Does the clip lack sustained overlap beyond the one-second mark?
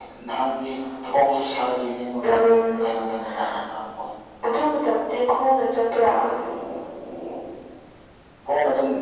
Yes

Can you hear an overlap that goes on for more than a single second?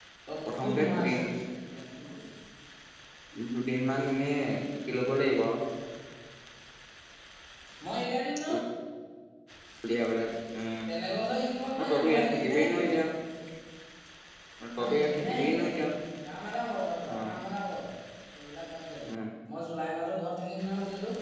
Yes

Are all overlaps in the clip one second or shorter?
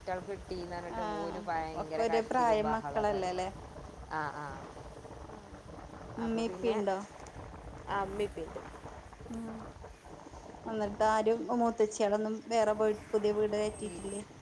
No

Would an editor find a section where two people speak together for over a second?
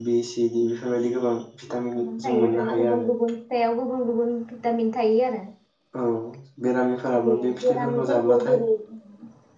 Yes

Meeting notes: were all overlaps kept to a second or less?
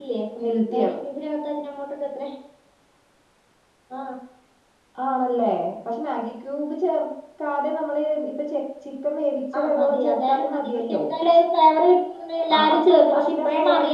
No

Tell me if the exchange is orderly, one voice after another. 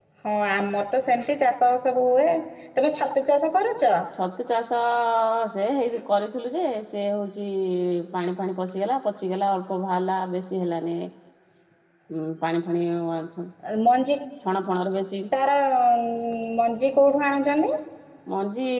Yes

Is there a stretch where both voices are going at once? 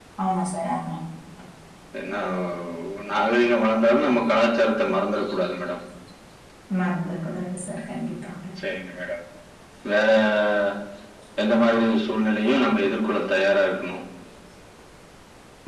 No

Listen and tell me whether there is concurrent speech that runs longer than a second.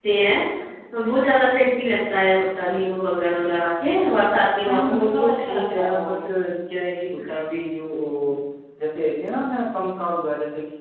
Yes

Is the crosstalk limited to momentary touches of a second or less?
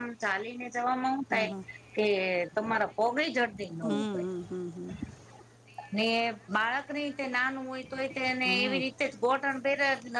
Yes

